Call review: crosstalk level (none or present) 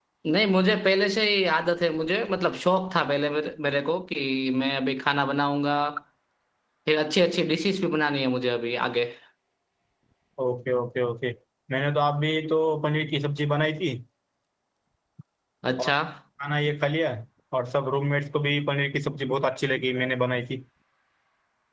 none